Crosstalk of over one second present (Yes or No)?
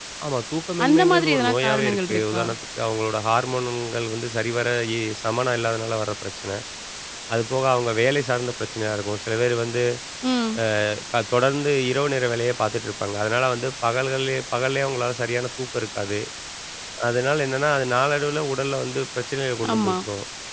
Yes